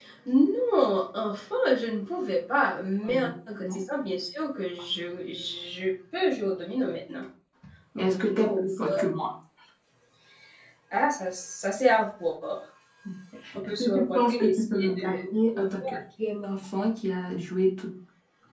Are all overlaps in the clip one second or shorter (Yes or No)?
No